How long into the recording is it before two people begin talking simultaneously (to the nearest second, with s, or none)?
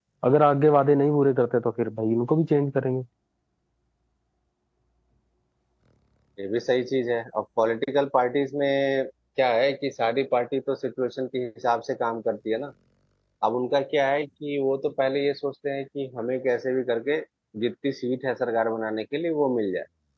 none